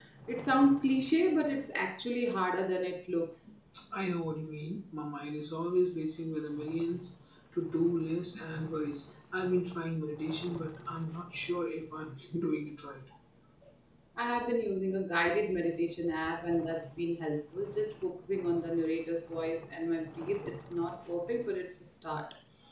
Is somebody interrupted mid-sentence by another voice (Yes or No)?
No